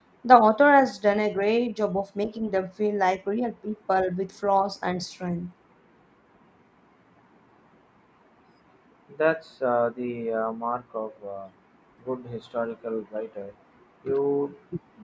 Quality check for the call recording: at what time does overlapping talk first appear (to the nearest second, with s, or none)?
none